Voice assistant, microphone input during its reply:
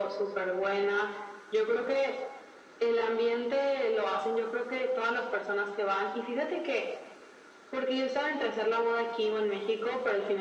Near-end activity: none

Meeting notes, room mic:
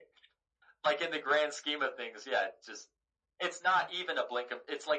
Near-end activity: none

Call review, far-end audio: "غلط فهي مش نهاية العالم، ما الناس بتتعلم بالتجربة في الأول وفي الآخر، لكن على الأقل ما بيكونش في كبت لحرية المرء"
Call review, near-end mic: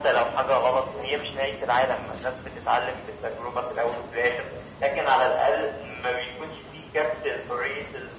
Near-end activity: none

